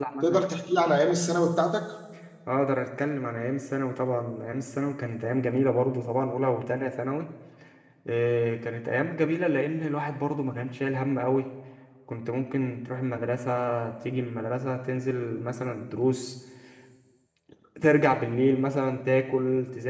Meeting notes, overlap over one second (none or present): none